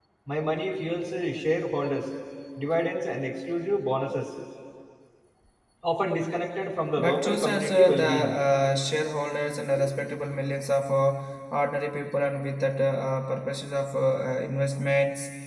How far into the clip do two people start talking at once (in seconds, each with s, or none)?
7.0 s